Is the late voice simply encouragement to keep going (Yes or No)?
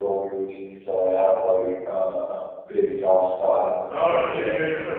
No